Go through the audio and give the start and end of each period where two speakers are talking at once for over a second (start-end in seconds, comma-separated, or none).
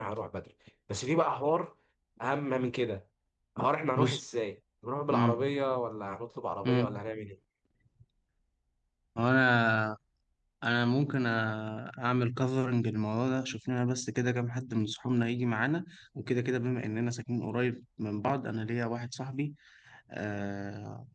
none